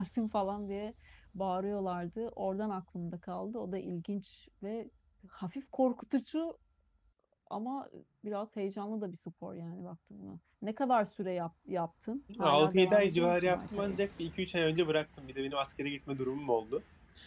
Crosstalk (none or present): present